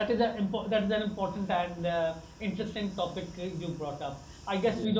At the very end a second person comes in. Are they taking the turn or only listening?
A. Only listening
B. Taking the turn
A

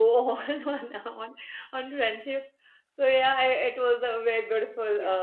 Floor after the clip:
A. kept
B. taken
B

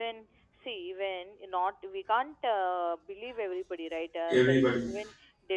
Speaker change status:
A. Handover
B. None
B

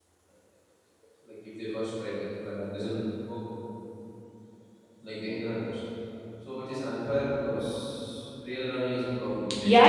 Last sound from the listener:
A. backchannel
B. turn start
B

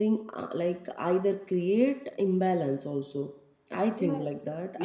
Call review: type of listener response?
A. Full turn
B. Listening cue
A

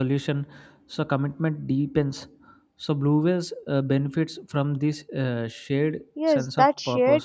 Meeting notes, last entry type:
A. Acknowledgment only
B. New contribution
B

